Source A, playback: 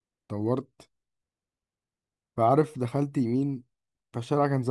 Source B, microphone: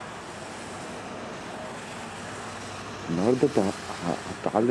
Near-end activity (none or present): present